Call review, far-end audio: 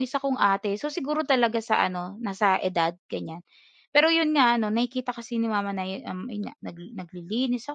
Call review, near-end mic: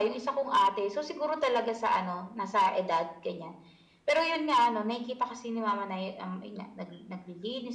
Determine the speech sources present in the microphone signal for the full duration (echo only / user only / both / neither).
echo only